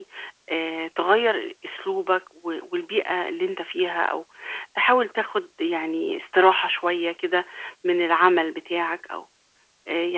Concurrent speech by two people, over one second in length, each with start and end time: none

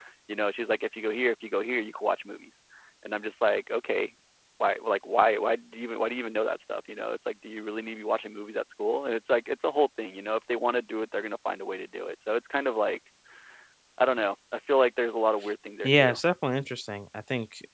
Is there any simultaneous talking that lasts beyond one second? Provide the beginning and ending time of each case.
none

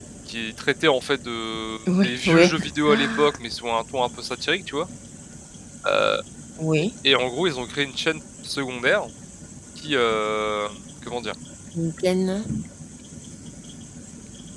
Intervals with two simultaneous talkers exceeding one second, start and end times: 2.0-3.3

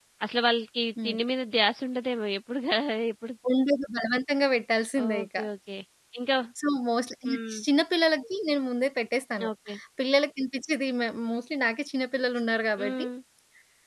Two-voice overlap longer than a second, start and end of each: none

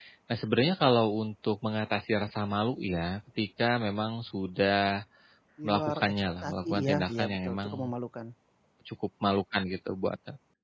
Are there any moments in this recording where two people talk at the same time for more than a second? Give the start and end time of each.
5.7-7.7

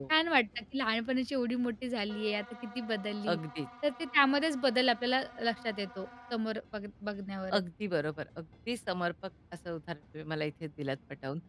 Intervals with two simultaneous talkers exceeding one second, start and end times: none

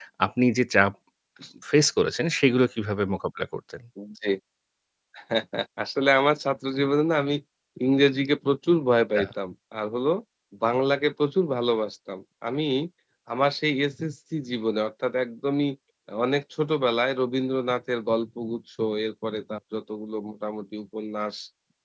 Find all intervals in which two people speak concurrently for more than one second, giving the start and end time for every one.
none

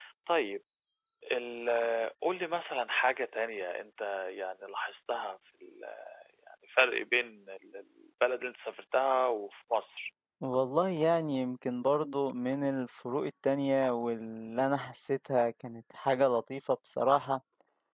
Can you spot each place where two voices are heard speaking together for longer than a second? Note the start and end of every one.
none

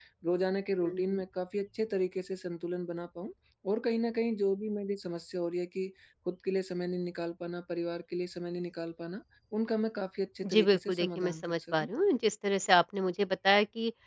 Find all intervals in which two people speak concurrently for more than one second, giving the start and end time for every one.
10.4-11.9

